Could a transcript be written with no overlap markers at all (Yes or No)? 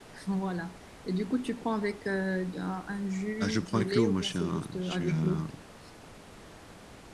No